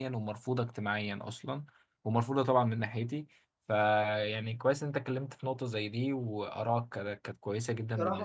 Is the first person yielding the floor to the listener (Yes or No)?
Yes